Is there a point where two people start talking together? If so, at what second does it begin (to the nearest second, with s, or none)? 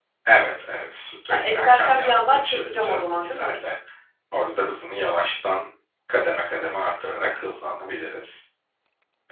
1 s